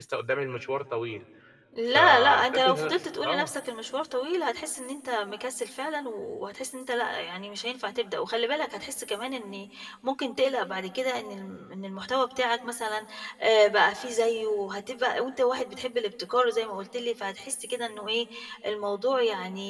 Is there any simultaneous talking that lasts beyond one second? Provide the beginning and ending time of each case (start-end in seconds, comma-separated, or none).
1.9-3.5